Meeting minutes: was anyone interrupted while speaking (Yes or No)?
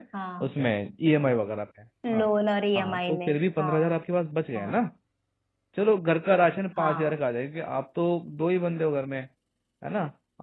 Yes